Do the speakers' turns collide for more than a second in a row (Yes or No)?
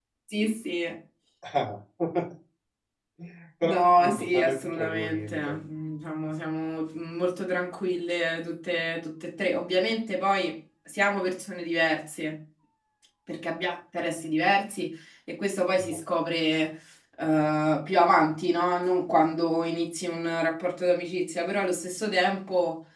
Yes